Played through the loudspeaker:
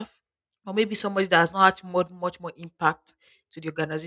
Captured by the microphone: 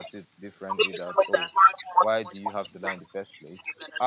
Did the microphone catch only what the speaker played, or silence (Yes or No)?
No